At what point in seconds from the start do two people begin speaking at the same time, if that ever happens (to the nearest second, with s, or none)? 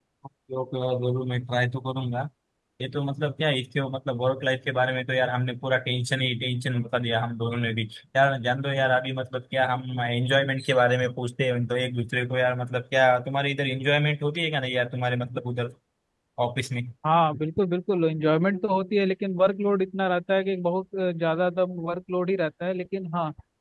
none